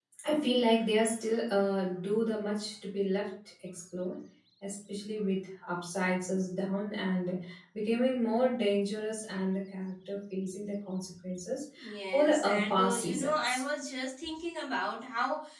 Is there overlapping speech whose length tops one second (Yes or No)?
Yes